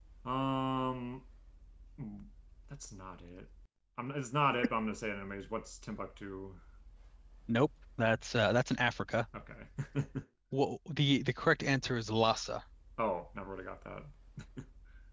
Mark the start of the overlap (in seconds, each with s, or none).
none